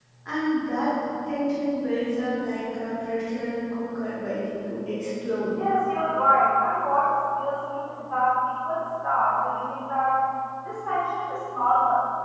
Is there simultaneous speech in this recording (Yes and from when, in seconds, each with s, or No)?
No